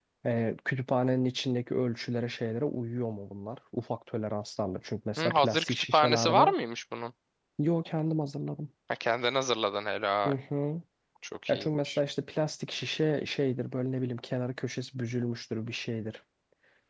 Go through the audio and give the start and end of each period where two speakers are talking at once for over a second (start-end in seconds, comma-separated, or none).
5.2-6.5